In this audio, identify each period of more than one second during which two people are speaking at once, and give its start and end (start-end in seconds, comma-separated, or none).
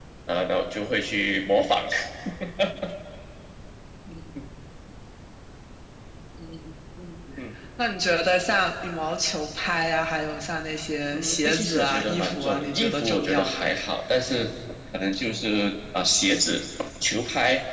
11.1-13.7